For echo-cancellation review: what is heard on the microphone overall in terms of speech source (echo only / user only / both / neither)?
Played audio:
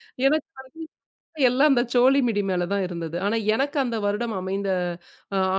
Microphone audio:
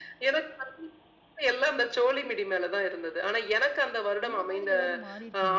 both